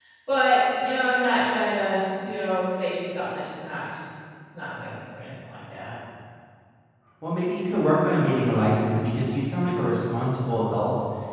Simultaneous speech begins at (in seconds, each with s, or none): none